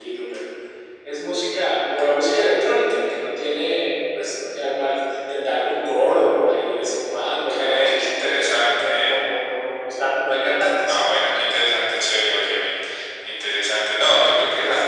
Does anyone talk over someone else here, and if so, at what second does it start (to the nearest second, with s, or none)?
7 s